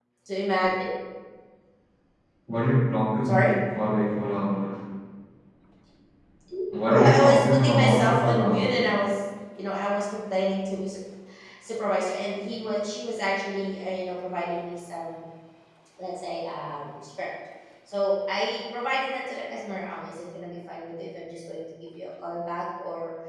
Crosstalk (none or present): present